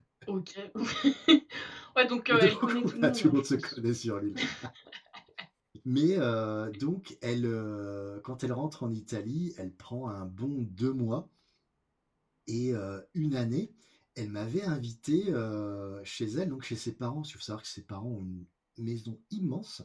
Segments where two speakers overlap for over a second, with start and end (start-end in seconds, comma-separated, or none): 2.3-3.7